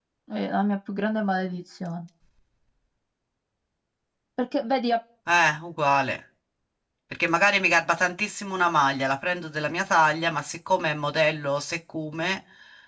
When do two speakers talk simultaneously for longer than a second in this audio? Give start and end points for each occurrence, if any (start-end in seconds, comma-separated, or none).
none